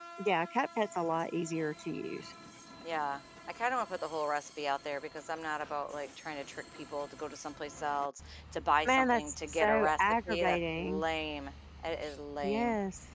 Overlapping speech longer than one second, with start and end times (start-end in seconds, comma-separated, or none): 8.8-11.0